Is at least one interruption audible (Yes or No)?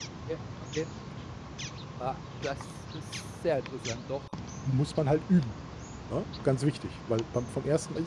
No